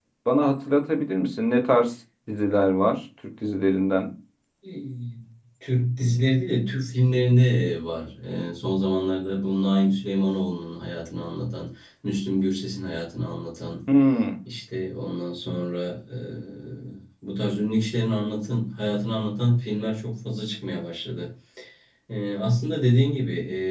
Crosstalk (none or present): none